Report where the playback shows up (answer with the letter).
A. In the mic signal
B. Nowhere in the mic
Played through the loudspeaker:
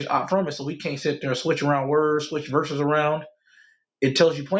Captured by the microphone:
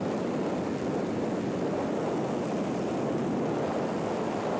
B